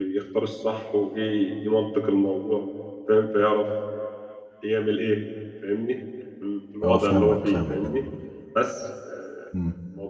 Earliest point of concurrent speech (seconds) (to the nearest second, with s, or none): 7 s